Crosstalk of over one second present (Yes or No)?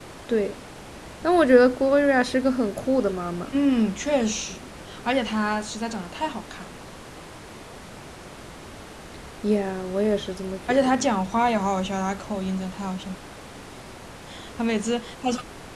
No